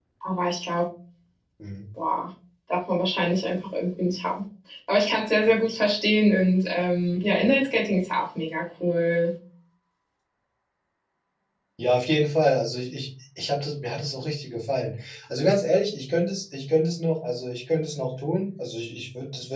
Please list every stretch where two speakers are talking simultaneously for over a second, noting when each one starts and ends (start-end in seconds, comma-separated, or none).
none